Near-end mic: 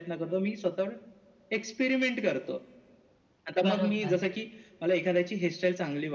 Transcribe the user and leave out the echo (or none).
बरोबर.